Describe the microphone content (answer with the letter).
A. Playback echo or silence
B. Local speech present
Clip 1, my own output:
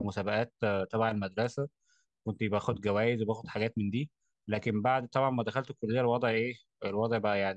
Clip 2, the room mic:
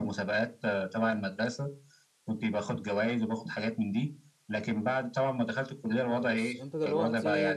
B